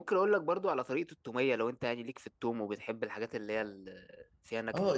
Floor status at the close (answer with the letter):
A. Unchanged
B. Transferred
B